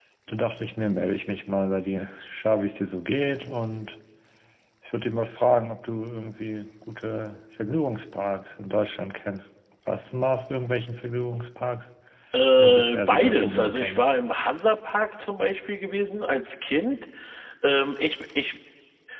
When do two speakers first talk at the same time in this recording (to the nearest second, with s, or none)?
13 s